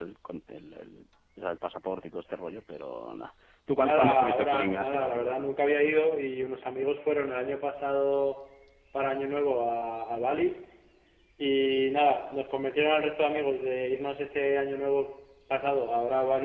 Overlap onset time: 3.8 s

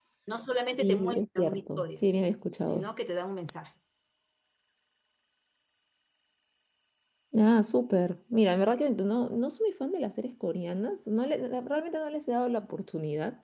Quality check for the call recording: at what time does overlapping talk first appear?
0.8 s

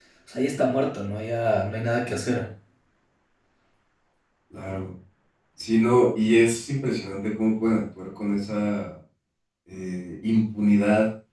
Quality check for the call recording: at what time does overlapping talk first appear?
none

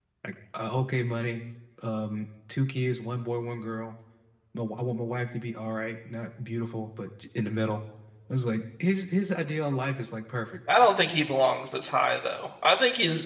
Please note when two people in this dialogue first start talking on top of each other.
none

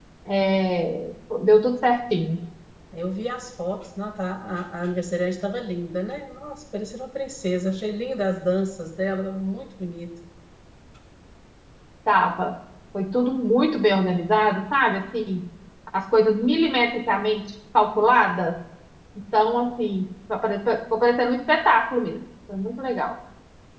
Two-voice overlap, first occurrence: none

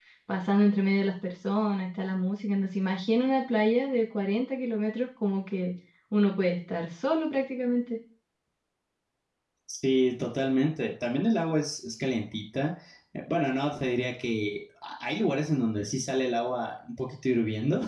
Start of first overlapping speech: none

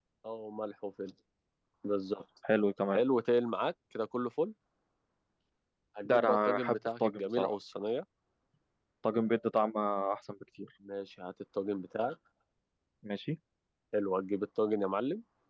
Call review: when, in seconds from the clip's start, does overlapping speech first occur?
6.1 s

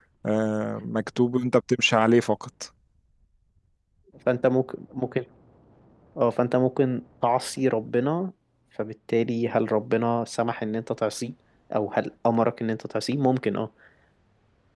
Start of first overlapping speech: none

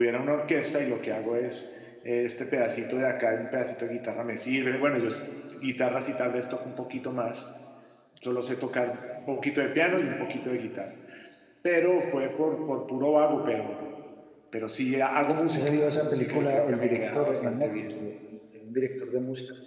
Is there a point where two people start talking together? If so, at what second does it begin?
15.5 s

